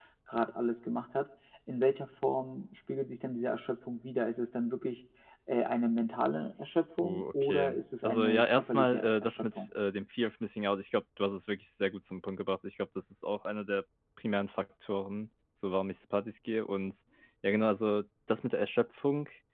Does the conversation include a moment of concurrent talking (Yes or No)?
Yes